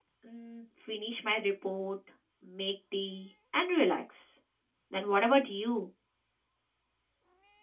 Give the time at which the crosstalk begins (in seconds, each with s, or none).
none